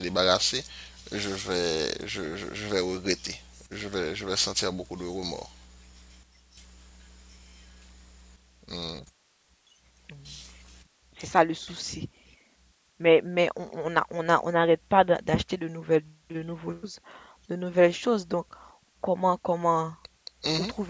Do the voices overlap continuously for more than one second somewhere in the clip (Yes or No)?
No